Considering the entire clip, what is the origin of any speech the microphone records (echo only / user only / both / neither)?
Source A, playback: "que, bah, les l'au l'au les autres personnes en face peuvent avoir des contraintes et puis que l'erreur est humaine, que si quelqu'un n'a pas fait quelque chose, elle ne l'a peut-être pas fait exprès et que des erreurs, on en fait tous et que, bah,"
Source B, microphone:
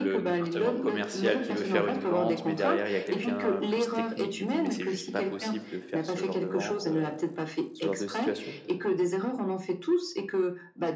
both